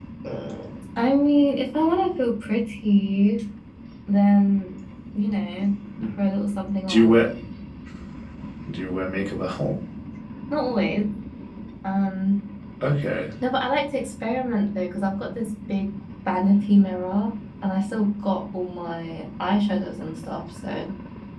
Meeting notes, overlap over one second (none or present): none